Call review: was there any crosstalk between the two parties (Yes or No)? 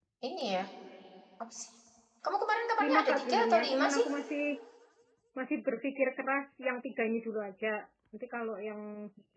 Yes